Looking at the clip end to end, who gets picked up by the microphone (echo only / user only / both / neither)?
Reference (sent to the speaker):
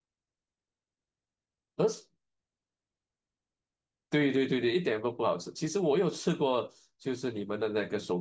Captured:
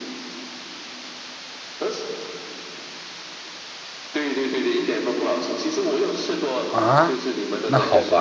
both